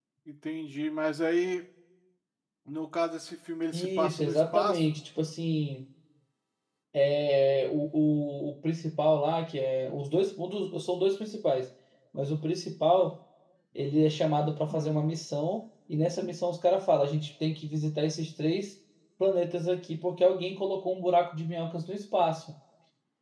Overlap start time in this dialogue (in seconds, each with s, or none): 3.7 s